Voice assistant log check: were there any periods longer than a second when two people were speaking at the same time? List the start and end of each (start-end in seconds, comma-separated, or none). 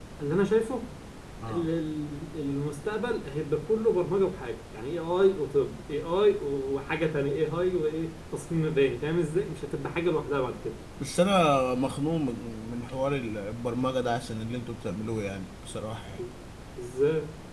none